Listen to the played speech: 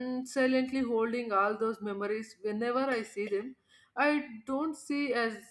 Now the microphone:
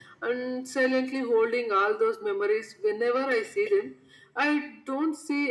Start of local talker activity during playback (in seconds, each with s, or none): none